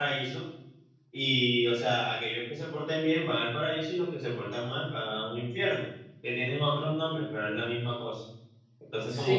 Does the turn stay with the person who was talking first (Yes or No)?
Yes